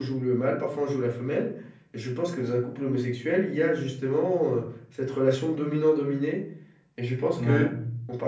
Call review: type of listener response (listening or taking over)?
listening